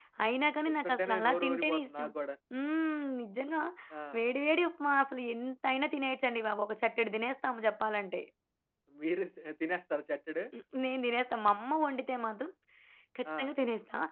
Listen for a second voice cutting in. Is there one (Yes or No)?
Yes